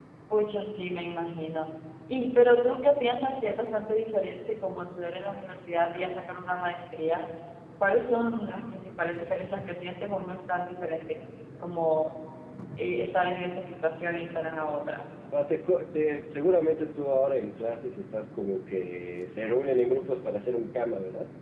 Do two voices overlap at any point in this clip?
No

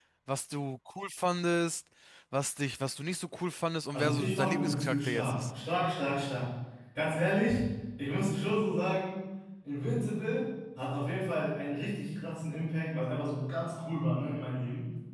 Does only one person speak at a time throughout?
No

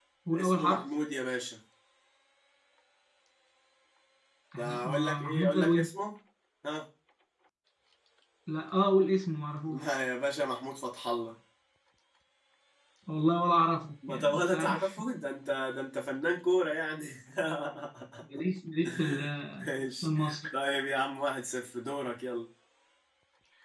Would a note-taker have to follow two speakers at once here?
Yes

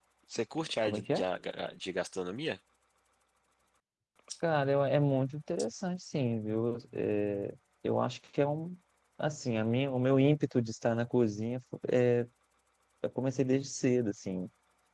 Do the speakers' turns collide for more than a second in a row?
No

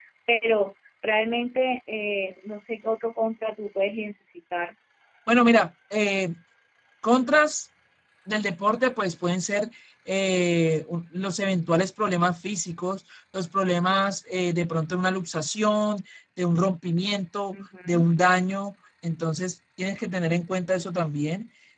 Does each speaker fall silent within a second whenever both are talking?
Yes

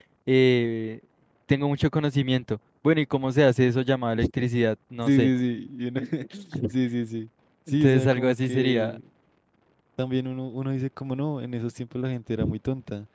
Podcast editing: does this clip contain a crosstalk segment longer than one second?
Yes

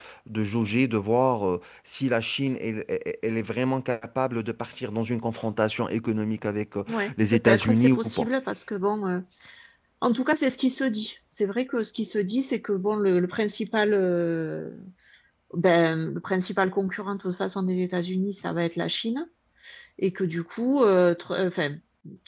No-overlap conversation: No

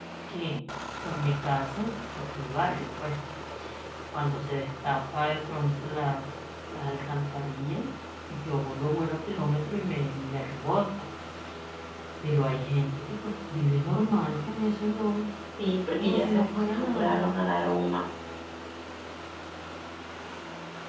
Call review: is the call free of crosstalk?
No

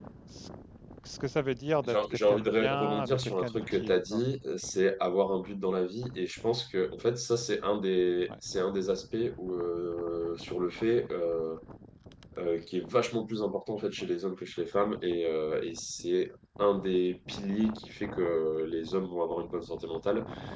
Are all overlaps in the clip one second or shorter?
No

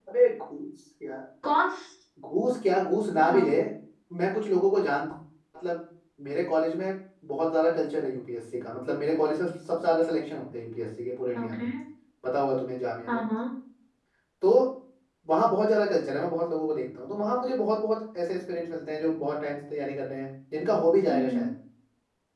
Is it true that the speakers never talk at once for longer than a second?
Yes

